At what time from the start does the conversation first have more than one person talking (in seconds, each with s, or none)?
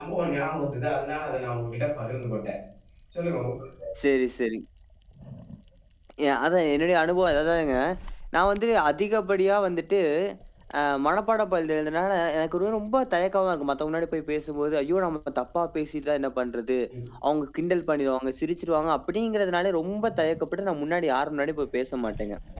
none